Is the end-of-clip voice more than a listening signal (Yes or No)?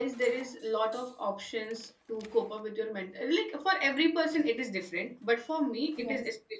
No